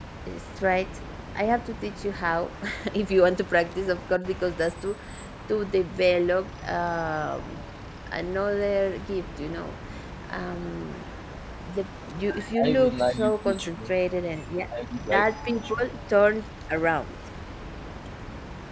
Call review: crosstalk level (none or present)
present